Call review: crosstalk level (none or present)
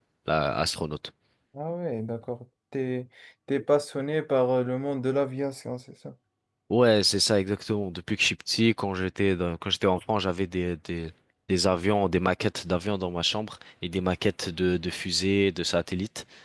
none